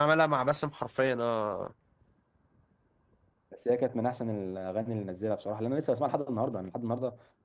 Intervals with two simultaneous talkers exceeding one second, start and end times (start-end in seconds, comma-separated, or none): none